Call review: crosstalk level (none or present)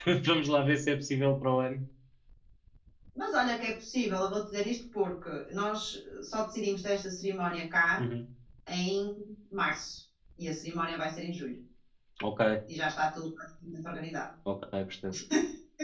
none